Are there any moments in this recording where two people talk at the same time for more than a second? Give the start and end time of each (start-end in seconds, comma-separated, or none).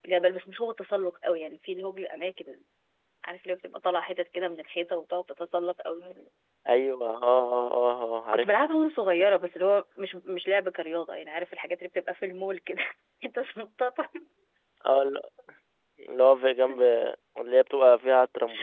none